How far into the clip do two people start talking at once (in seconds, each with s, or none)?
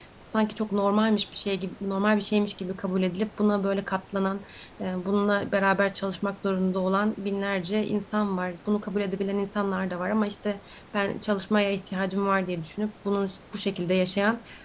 none